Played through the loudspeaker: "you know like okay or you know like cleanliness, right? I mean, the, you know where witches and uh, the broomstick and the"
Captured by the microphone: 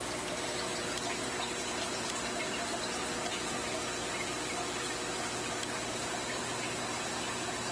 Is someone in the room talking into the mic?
No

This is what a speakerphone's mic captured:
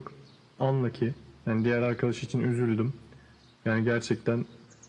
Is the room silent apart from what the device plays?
Yes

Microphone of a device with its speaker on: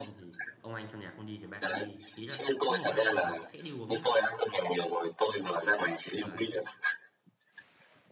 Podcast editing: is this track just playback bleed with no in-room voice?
No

